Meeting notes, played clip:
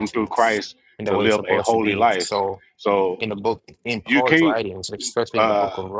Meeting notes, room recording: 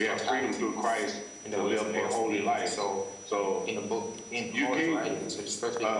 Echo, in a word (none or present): present